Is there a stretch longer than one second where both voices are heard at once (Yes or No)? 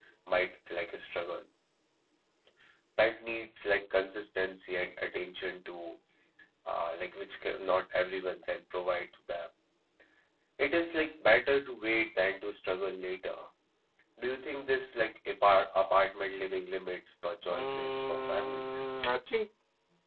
Yes